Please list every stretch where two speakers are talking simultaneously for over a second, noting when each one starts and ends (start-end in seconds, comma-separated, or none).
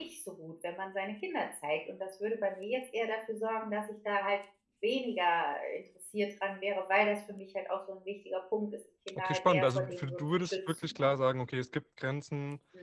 9.2-11.1